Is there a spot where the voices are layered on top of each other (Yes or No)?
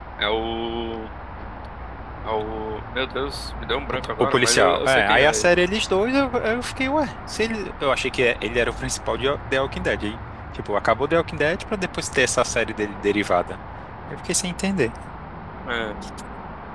Yes